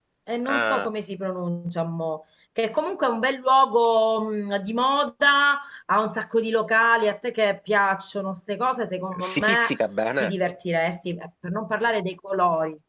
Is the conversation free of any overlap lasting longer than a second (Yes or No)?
Yes